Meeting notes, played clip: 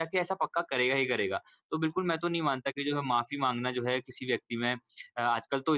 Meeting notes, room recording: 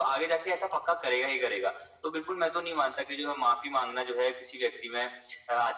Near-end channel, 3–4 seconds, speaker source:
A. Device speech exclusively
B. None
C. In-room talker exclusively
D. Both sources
A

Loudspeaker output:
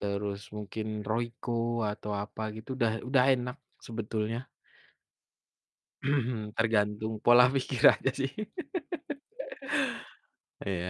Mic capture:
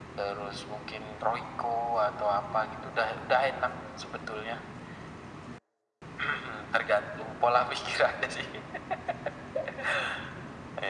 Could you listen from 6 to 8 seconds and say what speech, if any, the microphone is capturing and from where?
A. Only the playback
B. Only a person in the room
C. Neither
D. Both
A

